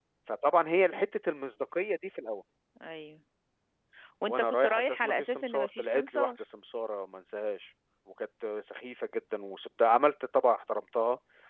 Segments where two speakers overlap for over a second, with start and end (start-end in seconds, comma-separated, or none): 4.3-6.3